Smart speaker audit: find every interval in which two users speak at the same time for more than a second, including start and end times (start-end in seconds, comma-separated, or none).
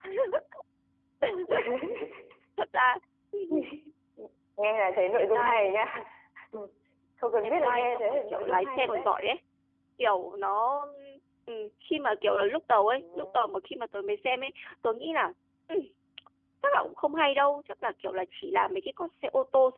7.4-9.1